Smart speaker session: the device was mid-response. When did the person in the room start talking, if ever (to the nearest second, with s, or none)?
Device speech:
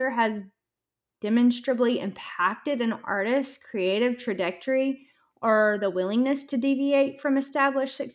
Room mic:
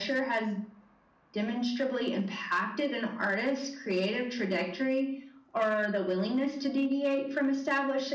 none